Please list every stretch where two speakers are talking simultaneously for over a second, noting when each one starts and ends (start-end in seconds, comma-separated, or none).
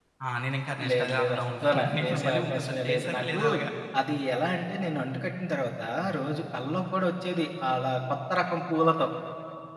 0.9-3.4